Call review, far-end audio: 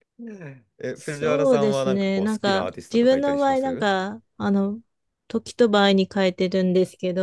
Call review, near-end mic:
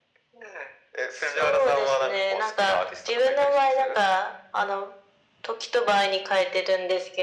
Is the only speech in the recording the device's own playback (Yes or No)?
Yes